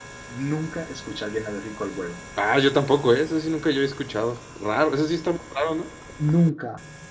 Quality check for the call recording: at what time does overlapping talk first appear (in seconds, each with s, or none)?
none